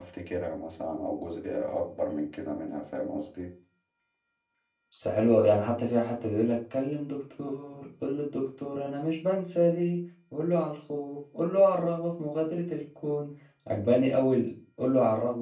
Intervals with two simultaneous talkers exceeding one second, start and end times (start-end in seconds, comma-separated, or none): none